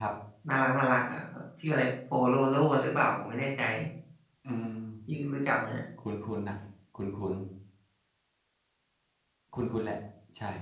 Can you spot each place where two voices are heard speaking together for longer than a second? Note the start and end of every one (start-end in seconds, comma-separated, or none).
none